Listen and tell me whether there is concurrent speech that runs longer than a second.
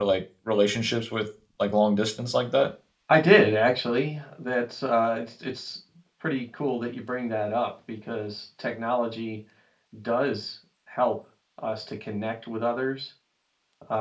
No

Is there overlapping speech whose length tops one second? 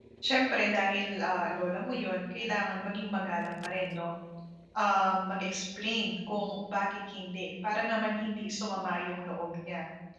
No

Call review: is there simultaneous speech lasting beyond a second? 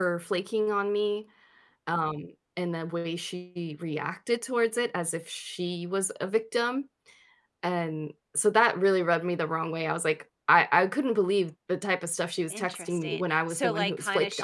Yes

